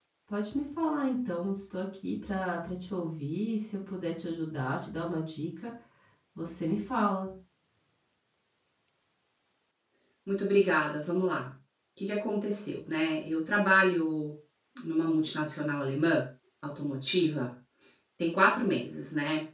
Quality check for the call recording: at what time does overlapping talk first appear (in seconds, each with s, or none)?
none